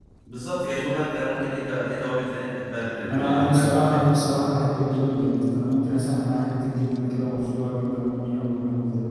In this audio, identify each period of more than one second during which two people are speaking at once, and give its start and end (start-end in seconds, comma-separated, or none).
3.1-4.3